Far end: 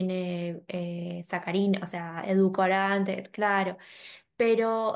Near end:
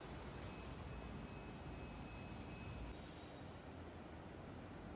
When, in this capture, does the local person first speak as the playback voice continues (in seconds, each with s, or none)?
none